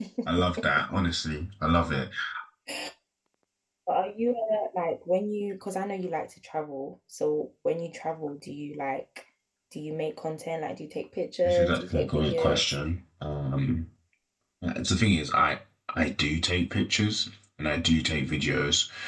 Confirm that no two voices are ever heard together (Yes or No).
No